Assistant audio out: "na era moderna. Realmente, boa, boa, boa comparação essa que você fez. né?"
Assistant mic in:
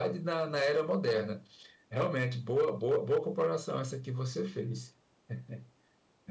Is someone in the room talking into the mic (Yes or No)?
No